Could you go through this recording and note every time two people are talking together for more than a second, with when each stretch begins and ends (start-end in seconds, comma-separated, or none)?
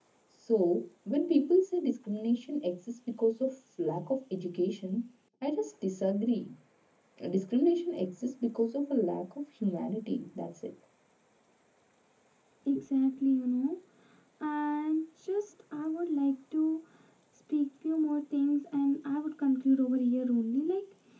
none